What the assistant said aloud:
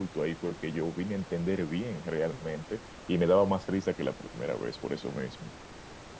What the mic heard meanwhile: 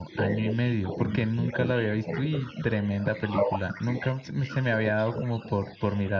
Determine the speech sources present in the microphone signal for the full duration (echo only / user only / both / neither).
both